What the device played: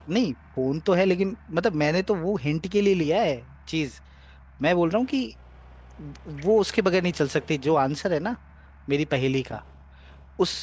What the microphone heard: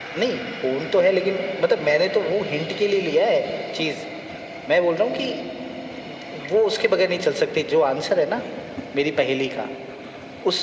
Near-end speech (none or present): none